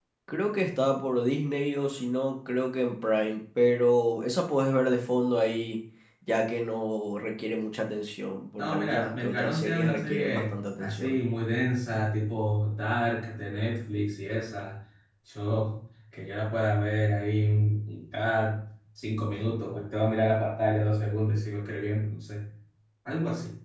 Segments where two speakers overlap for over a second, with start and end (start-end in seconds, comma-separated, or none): 8.6-11.2